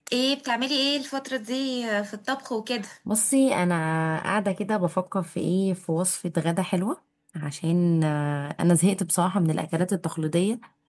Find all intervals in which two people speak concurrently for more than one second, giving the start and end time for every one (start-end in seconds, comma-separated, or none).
none